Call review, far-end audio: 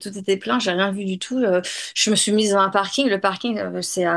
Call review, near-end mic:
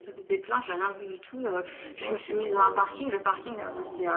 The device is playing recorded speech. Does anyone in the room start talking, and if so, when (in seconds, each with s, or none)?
1.6 s